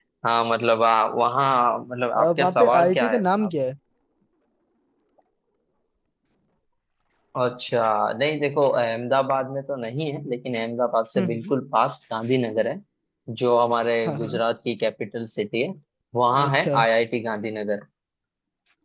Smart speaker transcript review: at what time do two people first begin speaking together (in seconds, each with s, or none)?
2.1 s